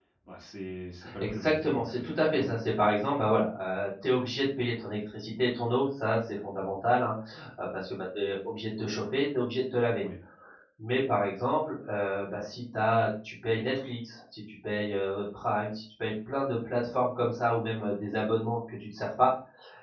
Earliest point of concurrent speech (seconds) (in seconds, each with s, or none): 1.2 s